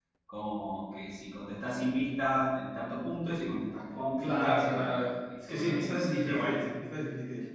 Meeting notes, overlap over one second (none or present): present